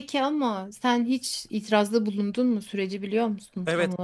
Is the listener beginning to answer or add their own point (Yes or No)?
Yes